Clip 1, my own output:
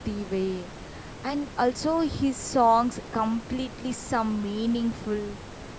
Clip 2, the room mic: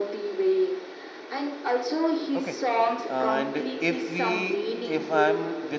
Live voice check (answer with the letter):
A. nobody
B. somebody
B